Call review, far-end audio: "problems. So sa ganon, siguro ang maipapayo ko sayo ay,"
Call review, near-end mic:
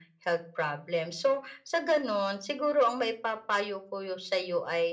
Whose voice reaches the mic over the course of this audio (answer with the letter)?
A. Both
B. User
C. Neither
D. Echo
D